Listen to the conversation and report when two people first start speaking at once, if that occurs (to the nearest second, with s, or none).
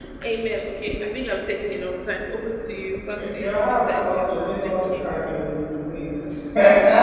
3 s